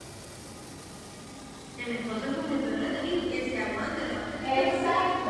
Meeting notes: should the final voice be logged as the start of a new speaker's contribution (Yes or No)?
Yes